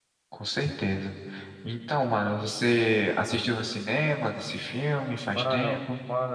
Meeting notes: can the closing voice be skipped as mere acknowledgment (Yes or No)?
No